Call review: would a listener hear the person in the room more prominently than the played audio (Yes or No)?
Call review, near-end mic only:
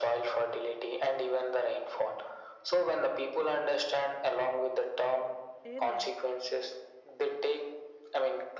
No